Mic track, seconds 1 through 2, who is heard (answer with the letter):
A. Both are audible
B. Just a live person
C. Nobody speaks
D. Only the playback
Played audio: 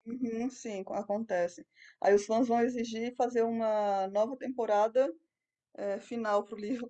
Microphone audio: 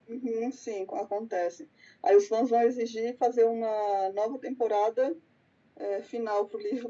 D